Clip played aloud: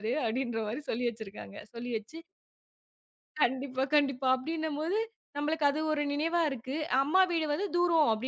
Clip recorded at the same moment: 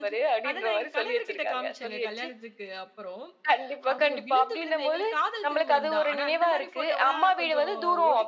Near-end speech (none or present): present